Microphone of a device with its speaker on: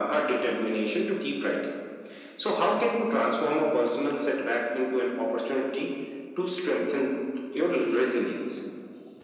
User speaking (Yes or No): No